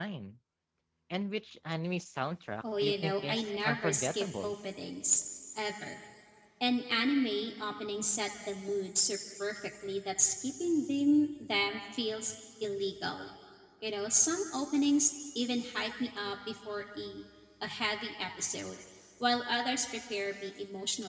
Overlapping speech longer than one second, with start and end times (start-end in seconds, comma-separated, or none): 2.8-4.5